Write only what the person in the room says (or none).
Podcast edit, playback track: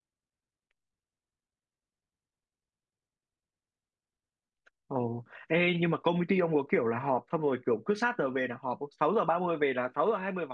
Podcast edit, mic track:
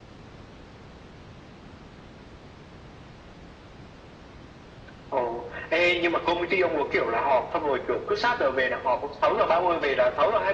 none